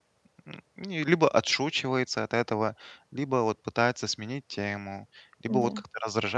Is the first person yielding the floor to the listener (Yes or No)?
No